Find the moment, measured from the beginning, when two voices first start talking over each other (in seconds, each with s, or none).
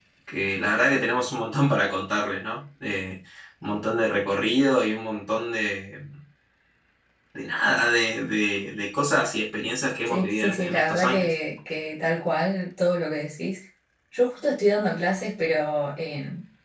10.1 s